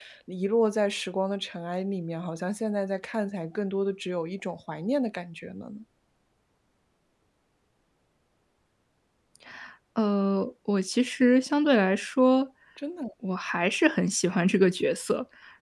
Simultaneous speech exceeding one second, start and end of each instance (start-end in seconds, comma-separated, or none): none